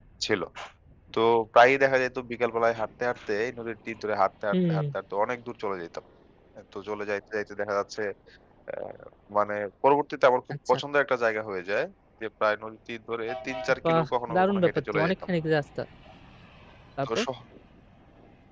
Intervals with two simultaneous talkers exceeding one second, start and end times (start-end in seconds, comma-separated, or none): 13.9-15.1